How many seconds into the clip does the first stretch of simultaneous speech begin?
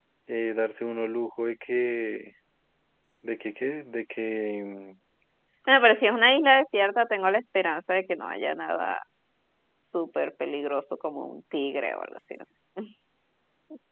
none

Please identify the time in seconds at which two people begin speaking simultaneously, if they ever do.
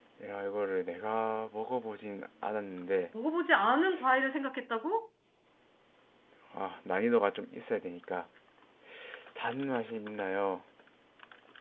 none

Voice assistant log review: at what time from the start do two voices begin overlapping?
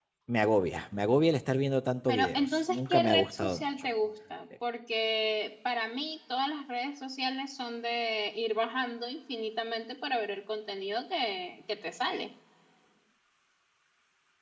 2.1 s

